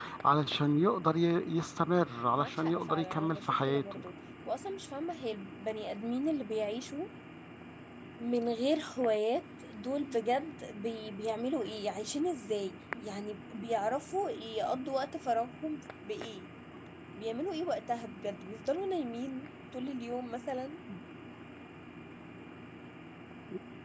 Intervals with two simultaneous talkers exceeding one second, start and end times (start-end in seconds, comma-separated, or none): 2.4-4.0